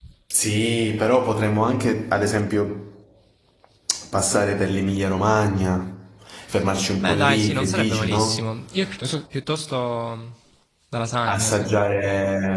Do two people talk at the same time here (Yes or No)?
Yes